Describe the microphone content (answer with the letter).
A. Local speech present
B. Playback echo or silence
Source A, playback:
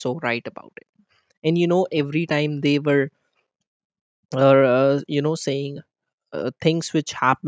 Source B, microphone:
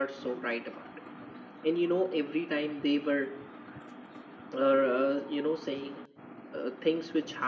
B